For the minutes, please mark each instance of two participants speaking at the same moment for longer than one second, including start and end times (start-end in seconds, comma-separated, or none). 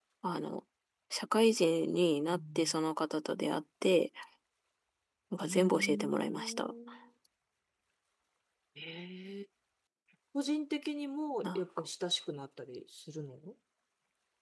5.4-6.7